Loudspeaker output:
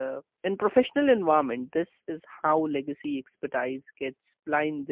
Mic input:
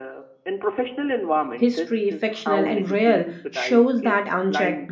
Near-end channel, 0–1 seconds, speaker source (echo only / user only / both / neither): echo only